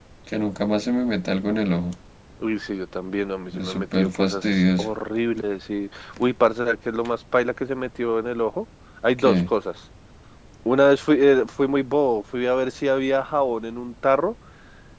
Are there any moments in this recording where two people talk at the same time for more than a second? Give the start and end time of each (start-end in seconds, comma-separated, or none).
3.6-4.9